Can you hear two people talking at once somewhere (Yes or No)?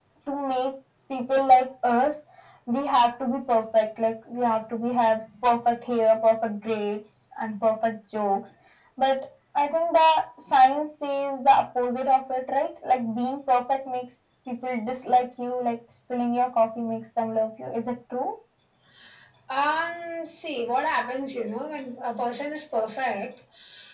No